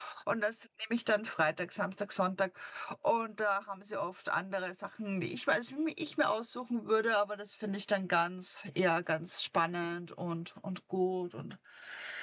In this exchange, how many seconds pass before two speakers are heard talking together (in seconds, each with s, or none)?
none